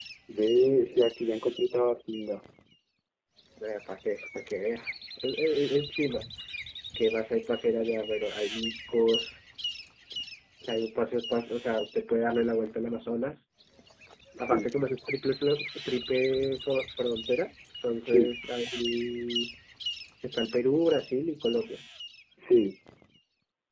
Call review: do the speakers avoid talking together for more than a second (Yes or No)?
Yes